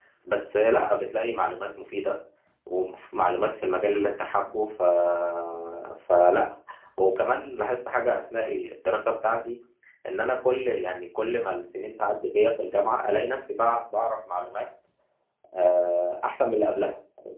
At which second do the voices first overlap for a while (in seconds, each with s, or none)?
none